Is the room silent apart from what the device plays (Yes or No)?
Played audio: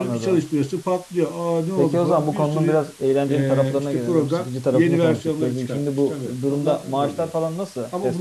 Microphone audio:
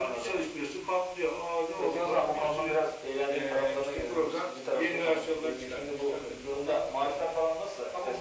Yes